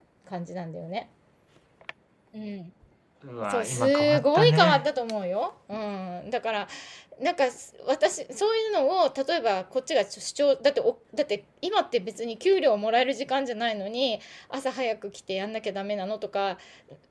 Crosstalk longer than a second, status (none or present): present